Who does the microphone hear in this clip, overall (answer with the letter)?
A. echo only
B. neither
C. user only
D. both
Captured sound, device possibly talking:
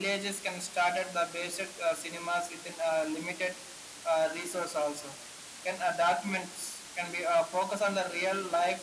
A